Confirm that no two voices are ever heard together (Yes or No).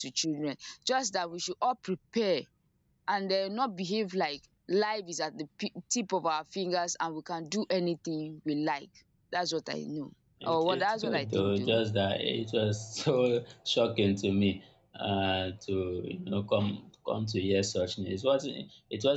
No